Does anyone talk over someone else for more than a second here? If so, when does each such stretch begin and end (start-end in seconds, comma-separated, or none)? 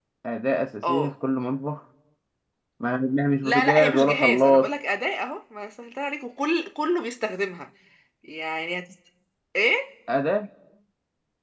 3.4-4.7